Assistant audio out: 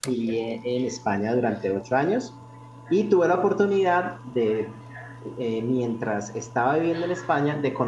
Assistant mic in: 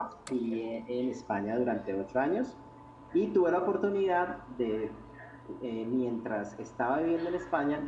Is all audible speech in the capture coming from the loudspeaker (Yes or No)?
Yes